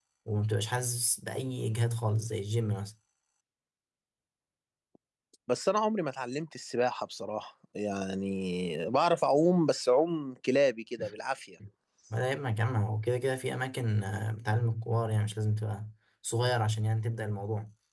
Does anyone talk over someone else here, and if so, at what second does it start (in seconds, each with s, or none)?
none